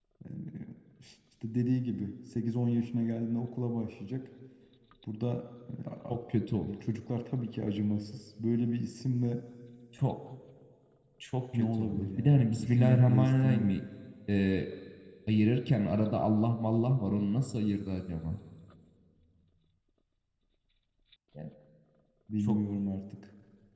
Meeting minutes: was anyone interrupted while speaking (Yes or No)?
Yes